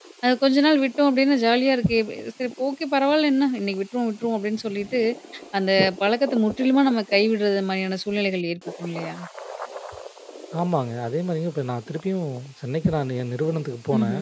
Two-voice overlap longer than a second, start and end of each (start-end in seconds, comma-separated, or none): none